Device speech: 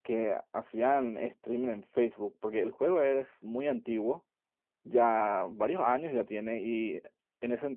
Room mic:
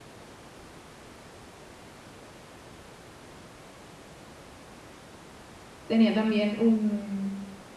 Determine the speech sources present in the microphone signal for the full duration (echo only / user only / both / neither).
user only